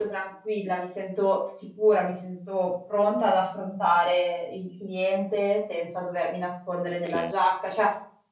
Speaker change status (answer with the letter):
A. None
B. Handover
A